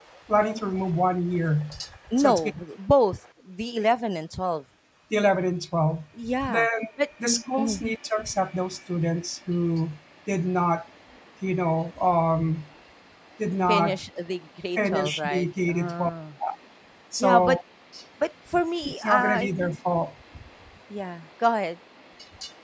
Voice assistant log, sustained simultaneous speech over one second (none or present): present